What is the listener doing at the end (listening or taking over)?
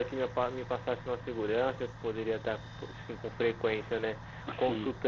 listening